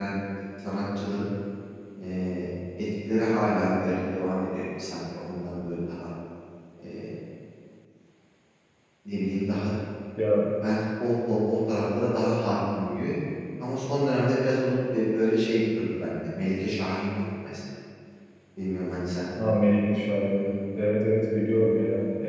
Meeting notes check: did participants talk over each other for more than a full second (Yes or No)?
No